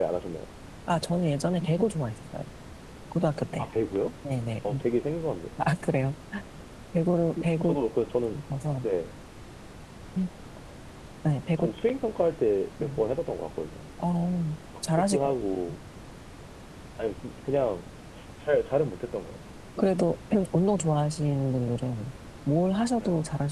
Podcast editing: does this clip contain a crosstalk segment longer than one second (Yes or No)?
No